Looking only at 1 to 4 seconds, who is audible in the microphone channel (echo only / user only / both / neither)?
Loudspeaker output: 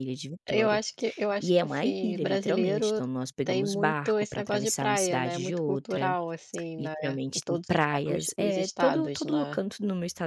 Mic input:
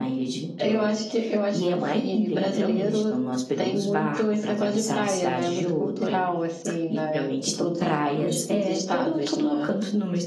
echo only